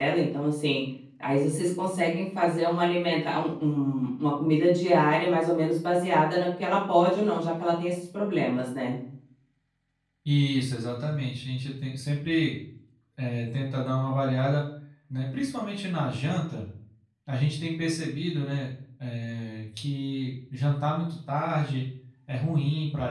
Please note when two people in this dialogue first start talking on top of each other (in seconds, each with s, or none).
none